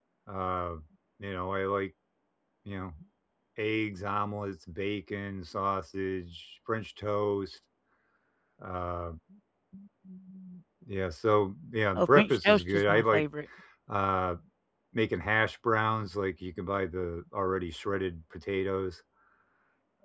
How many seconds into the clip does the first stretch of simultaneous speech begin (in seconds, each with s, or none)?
12.0 s